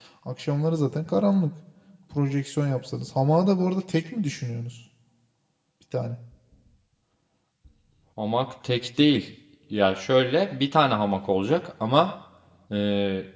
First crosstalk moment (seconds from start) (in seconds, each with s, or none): none